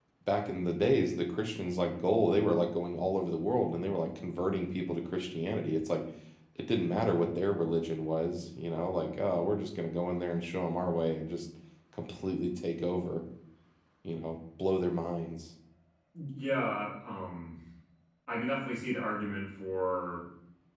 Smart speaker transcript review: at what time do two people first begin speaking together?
none

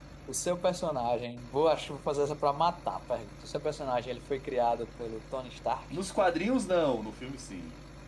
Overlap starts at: none

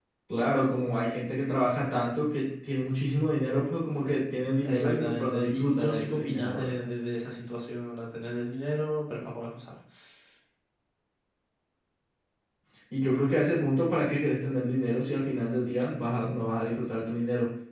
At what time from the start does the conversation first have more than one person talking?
4.6 s

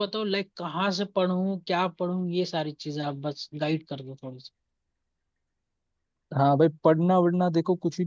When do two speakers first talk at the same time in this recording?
none

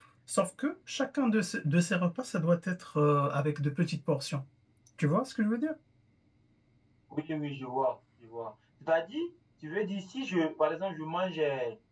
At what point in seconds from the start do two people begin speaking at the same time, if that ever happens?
none

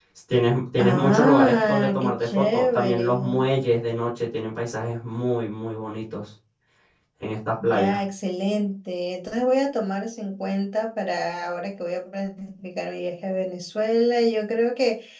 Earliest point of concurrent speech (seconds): 0.8 s

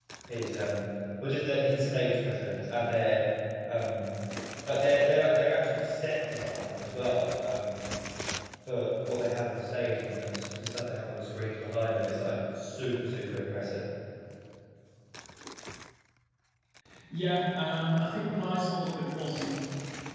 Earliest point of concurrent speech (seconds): none

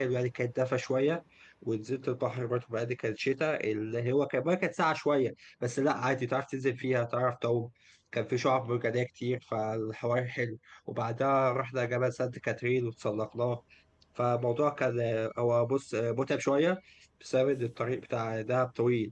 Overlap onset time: none

